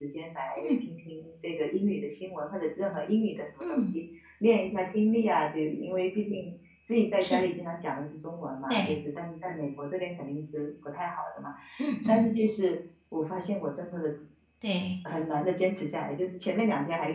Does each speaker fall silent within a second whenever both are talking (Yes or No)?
Yes